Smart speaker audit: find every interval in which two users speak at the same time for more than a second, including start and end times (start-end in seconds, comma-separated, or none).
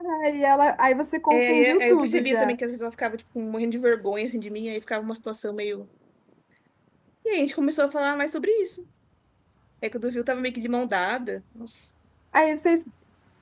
1.3-2.5